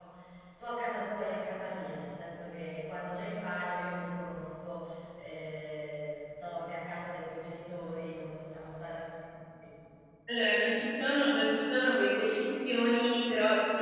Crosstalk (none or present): none